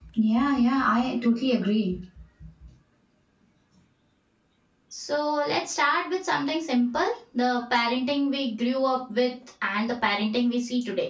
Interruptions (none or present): none